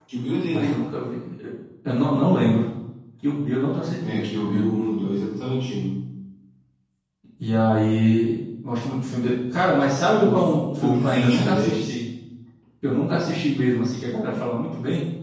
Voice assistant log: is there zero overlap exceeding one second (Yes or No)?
No